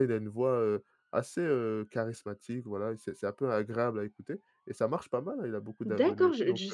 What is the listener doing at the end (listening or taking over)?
taking over